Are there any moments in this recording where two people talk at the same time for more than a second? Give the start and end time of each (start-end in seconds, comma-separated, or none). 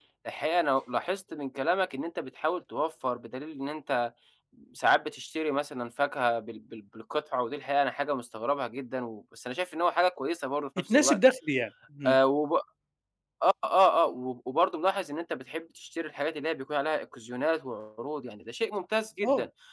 none